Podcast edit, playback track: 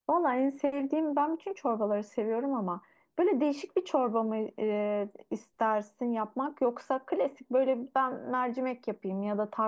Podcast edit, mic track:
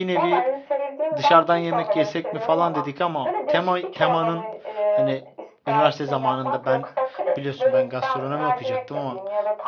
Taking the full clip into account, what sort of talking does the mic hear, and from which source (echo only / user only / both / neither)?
both